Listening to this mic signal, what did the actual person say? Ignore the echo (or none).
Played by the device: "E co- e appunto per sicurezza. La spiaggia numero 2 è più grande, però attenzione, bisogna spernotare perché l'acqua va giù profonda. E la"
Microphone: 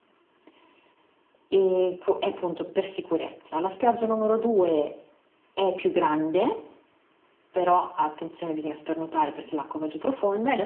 none